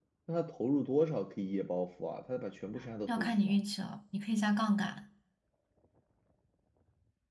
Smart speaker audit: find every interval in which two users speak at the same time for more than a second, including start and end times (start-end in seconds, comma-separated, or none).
none